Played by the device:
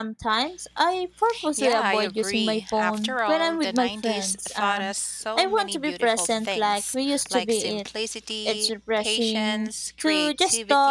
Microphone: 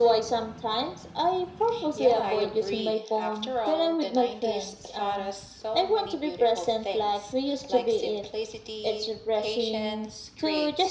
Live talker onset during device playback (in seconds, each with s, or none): none